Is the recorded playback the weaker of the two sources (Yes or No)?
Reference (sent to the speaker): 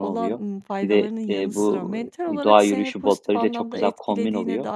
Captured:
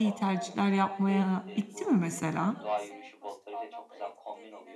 Yes